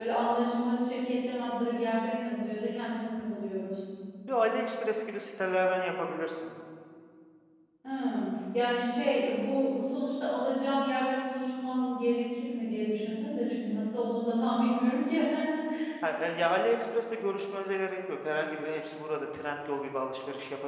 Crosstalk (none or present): none